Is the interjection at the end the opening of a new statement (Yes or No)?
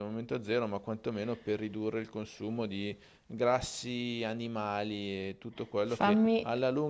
No